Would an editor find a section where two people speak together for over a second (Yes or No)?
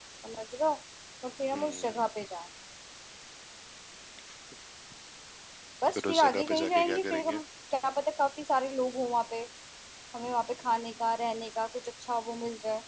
Yes